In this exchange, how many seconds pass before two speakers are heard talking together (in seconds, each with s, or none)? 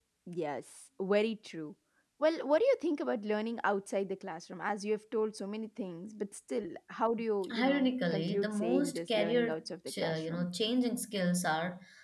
7.4 s